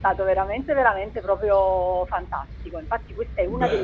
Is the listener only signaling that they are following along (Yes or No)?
Yes